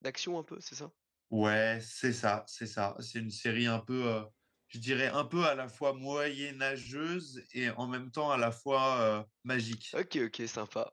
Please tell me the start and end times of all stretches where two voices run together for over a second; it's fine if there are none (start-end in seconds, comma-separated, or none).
none